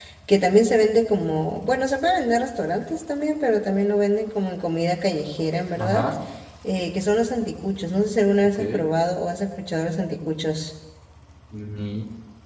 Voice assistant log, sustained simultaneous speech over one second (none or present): none